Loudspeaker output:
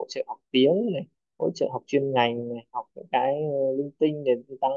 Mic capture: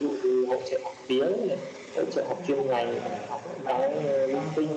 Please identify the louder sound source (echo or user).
echo